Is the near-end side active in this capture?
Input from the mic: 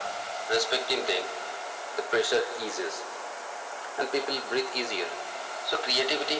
No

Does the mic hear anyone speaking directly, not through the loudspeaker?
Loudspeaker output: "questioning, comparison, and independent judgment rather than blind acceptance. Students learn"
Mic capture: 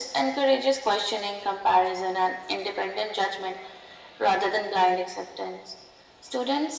No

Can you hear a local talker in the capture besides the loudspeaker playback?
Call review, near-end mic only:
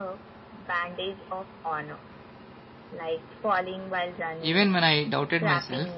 Yes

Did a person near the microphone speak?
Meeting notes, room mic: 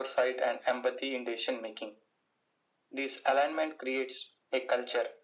No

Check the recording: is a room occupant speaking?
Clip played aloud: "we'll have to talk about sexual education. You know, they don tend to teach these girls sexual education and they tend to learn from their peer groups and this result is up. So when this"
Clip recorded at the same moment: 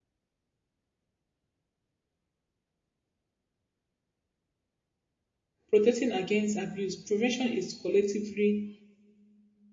Yes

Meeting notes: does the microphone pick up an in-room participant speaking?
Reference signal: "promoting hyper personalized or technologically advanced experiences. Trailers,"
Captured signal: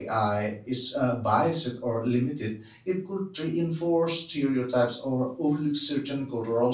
Yes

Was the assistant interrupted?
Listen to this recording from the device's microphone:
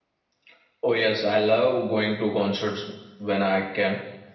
No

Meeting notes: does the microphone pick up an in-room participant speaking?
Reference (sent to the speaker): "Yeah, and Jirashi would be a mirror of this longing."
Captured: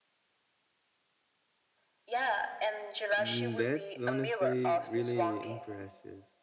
Yes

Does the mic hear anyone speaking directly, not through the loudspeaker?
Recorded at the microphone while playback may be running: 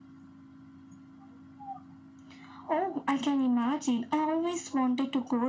No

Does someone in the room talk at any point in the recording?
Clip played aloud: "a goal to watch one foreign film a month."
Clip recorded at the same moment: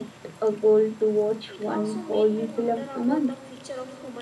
Yes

